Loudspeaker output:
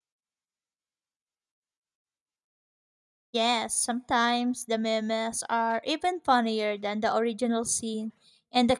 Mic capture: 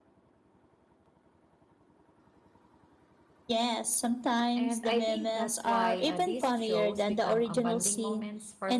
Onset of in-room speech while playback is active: 4.5 s

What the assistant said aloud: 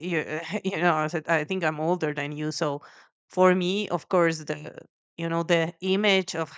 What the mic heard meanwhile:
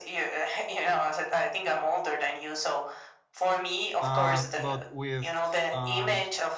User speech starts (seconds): 4.0 s

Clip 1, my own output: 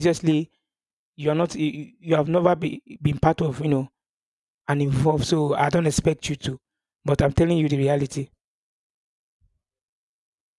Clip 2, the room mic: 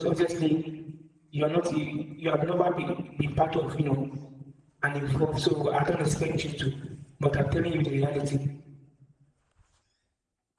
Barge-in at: none

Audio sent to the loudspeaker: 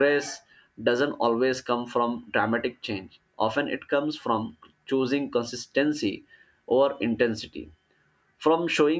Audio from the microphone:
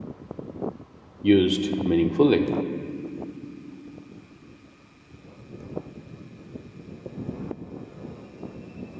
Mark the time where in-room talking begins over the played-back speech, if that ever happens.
1.2 s

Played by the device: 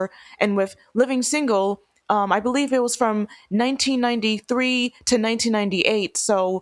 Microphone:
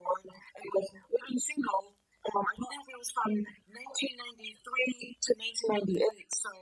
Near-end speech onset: none

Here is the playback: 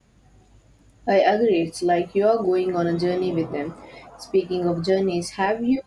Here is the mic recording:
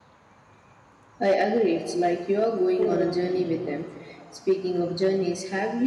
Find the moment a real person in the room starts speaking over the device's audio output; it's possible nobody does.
2.8 s

